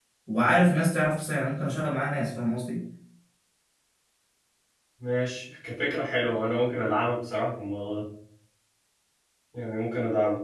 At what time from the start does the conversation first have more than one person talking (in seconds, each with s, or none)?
none